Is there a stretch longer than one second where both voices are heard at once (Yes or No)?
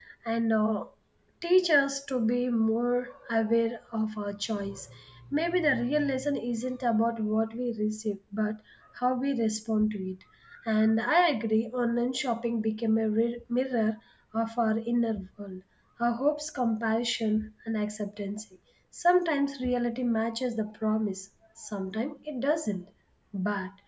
No